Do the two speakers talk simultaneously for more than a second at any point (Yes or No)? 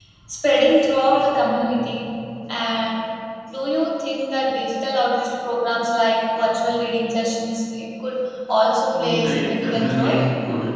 Yes